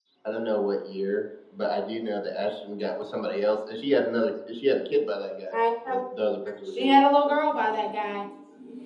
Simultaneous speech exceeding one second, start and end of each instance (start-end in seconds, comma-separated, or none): none